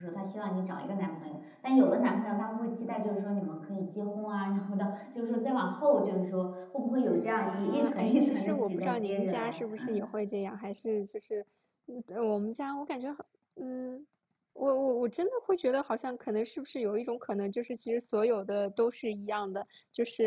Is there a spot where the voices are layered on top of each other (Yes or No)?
Yes